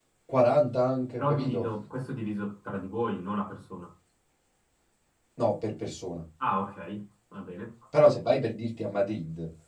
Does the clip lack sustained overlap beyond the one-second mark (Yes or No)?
Yes